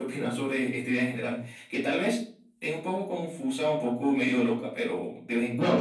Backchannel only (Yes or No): No